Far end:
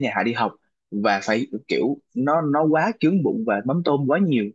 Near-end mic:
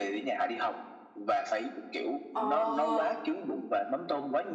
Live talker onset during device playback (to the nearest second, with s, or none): 2 s